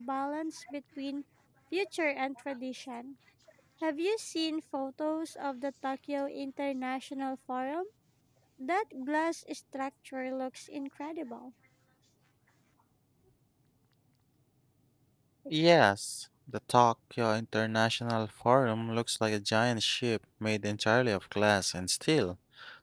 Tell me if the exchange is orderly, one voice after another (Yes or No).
Yes